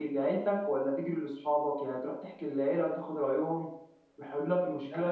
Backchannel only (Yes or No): Yes